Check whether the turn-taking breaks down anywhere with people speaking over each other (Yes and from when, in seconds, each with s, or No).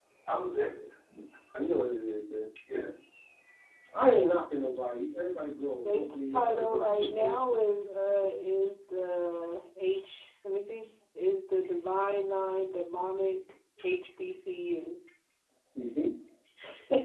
Yes, from 5.8 s